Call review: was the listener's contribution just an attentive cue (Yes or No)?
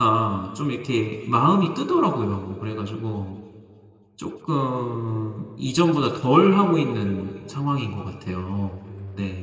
No